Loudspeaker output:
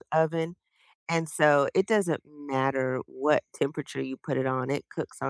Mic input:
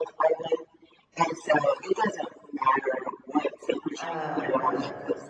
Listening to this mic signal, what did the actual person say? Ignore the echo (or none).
a a